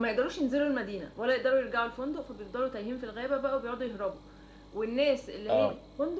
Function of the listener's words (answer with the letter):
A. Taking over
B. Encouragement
B